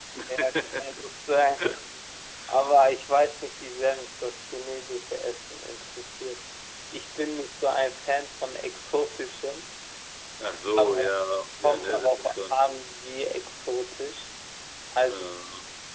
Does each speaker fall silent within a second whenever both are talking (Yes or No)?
No